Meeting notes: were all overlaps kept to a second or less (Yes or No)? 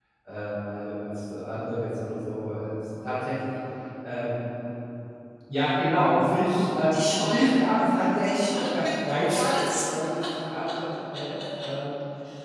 No